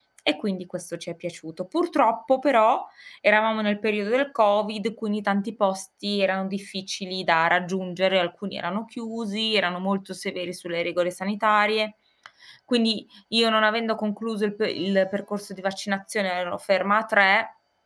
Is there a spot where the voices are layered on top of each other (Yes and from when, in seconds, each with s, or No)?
No